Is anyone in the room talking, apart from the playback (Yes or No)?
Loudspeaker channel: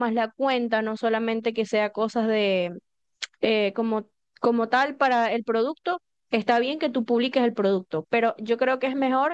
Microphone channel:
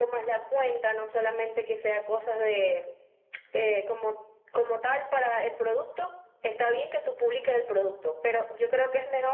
No